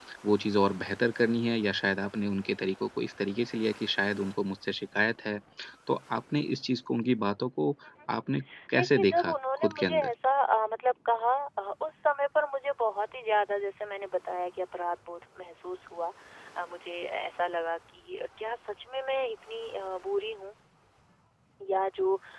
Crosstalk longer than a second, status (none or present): present